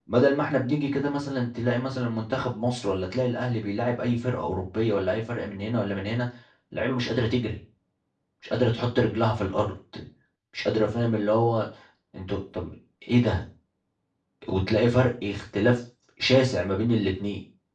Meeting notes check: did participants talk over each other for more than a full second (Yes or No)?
No